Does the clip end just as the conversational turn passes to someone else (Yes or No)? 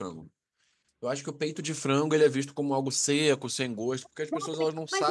Yes